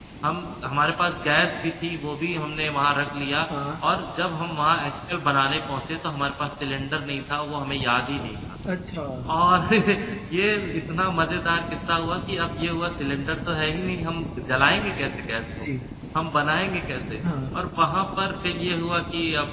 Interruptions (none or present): none